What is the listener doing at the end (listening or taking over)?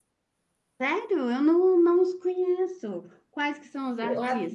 taking over